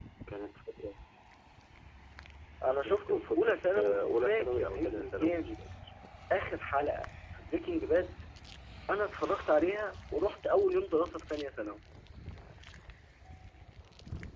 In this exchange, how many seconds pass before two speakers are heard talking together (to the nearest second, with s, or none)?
3 s